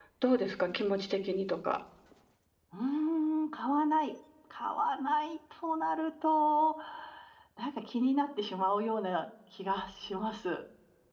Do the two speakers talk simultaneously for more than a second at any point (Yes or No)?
No